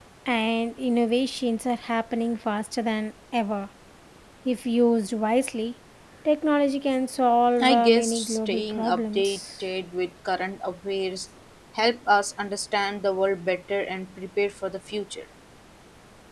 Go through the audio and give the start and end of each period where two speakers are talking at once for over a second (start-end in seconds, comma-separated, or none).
7.6-9.4